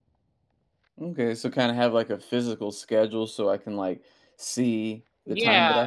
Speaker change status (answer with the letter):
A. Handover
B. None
A